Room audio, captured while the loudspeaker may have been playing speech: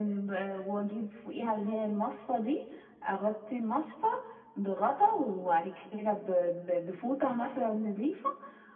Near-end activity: none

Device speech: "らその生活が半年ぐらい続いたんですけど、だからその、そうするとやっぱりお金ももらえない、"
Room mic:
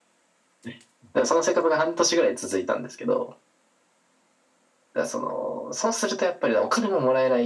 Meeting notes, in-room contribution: none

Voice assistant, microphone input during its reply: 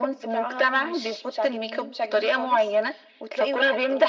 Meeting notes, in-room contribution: none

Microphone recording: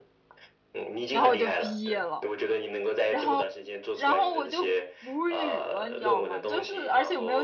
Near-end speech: present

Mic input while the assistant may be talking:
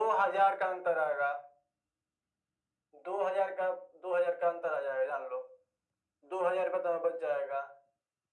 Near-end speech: none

